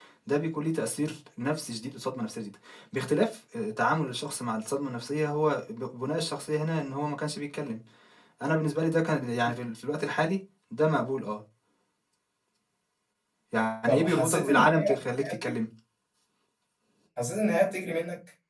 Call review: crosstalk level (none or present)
present